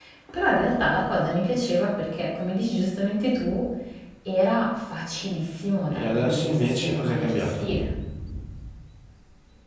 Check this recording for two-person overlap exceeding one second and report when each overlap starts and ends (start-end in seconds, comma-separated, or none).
5.9-7.7